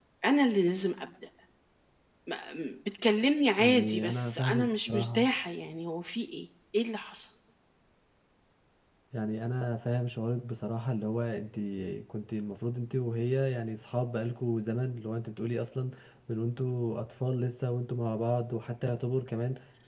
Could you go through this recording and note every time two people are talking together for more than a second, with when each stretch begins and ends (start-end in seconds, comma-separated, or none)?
3.6-5.3